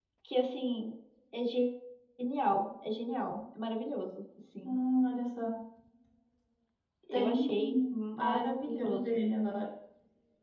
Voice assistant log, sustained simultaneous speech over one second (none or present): present